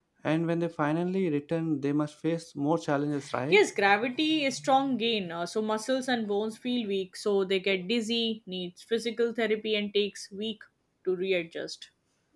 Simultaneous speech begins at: none

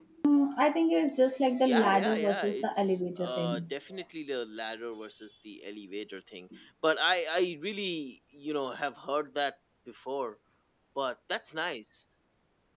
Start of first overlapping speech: 1.6 s

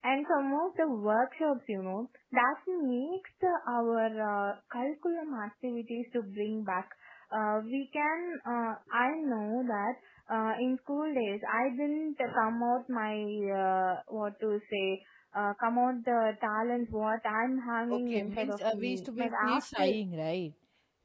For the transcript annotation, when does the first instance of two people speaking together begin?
17.9 s

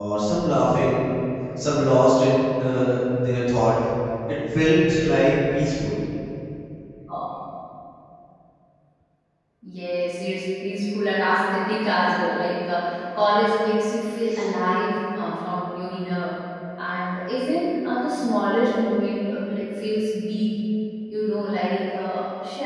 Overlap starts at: none

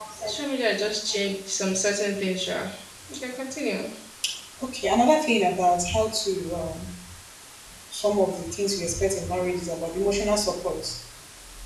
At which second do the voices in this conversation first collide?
none

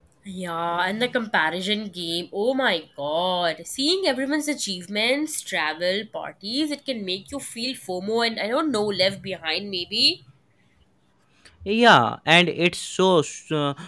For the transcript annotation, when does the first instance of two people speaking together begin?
none

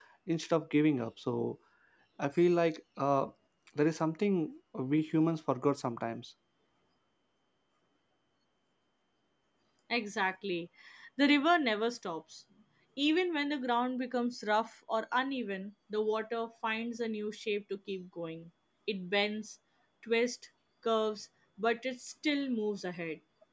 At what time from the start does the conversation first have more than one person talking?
none

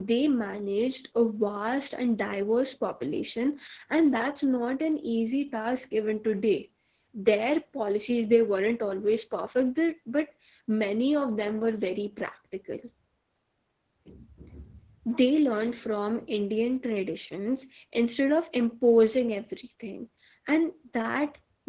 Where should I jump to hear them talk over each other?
none

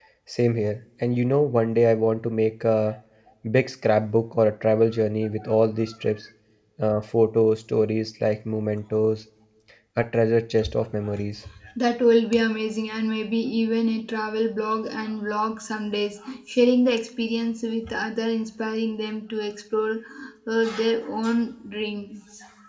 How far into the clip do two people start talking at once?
none

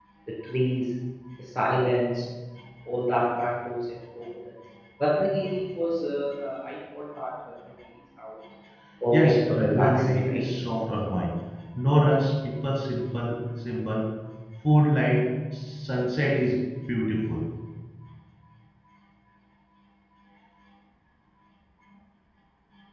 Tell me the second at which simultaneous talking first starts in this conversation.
9.1 s

